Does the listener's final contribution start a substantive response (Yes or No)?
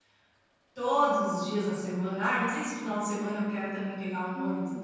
Yes